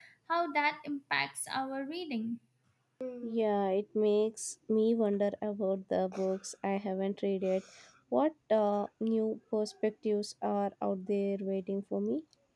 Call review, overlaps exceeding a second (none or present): none